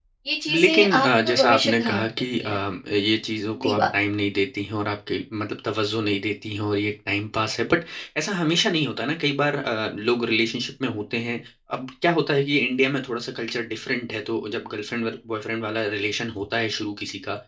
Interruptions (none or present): present